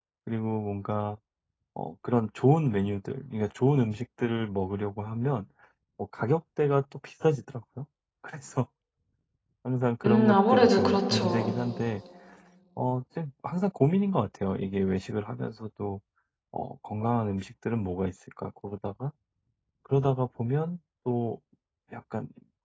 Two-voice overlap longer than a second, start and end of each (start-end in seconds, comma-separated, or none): 10.0-11.5